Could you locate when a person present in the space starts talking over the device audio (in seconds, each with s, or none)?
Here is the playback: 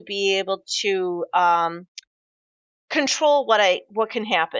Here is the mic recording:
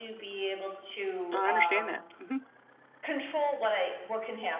1.3 s